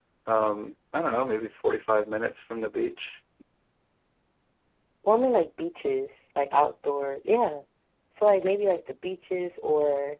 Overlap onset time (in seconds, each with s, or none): none